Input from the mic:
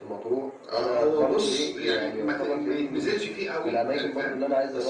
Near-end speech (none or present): none